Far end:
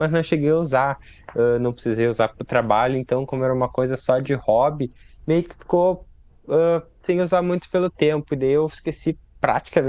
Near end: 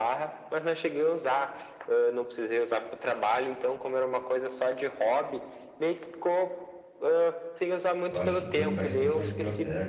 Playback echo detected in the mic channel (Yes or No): Yes